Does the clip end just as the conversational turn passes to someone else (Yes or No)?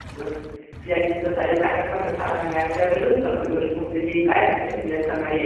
Yes